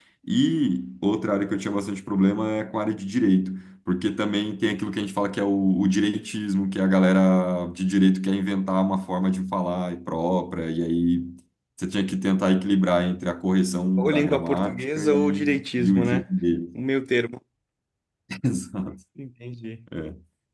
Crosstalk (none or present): present